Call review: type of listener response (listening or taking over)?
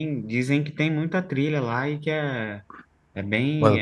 taking over